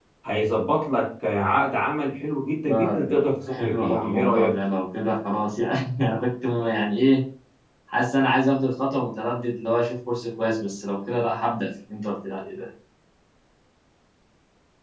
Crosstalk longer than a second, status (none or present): present